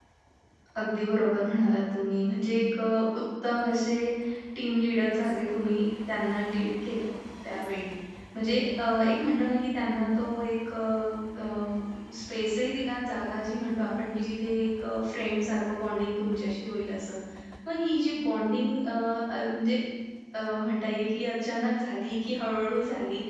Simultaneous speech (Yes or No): No